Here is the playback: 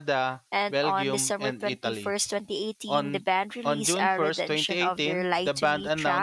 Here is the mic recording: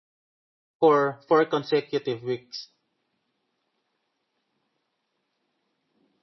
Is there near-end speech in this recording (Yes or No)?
Yes